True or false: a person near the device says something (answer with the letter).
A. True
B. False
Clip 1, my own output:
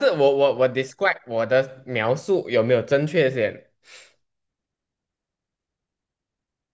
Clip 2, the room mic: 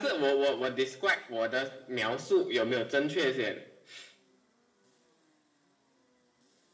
B